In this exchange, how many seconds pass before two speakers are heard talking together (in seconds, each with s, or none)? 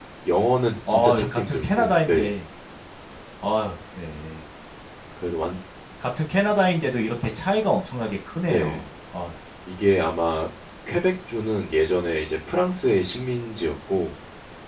0.9 s